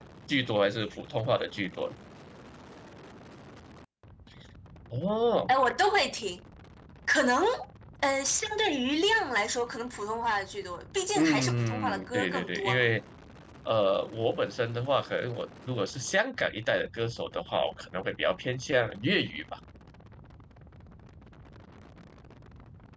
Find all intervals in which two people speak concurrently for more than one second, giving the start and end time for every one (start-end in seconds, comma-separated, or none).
11.2-12.9